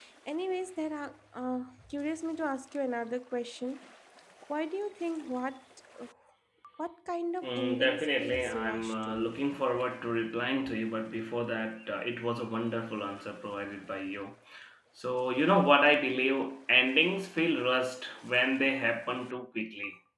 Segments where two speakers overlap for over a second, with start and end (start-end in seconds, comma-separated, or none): 7.4-9.4